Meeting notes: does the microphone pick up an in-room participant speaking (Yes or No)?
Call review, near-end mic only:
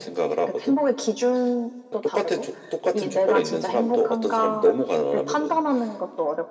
No